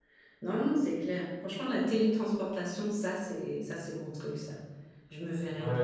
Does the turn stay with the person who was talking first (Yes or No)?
No